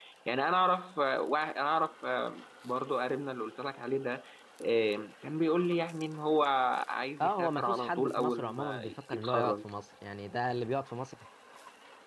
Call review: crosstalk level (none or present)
present